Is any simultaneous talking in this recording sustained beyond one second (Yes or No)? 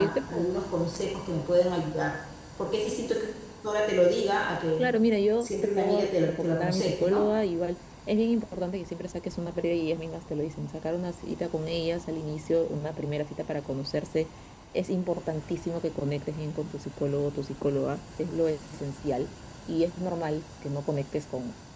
Yes